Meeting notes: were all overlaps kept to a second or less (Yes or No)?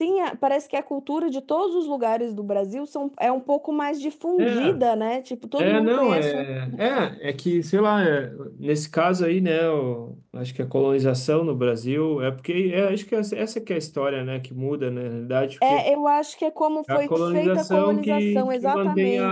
No